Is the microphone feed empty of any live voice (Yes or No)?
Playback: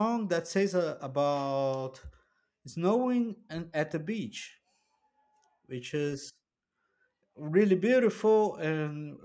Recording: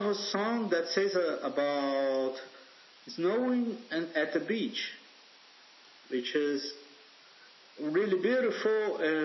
Yes